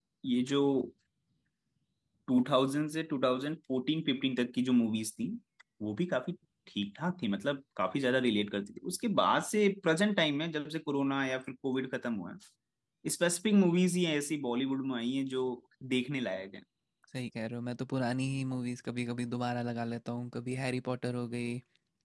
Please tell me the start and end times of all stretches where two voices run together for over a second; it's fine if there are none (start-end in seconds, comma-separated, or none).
none